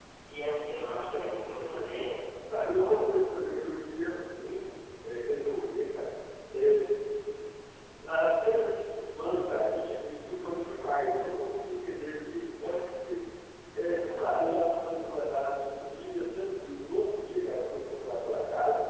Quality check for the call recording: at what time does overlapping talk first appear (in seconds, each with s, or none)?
0.7 s